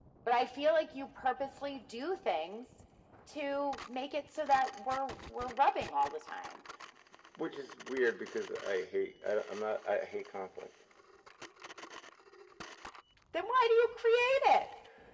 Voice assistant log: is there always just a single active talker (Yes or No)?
Yes